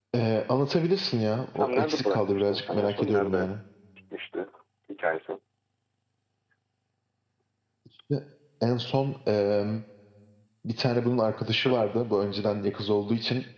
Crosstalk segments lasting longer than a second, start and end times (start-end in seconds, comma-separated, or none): 1.6-3.5